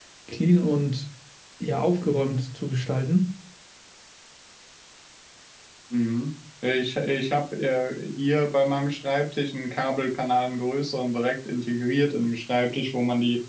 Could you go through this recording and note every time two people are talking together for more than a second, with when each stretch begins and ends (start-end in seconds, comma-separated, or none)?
none